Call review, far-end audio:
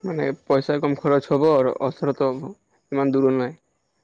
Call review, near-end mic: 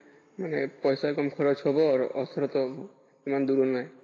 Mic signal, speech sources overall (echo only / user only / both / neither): echo only